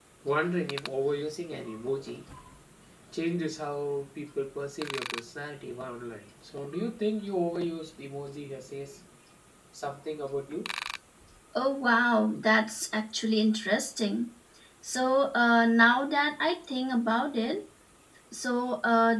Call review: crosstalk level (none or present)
none